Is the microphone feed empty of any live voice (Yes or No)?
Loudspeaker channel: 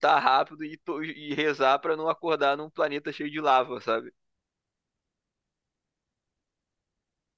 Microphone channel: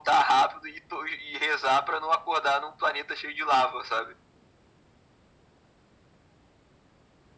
Yes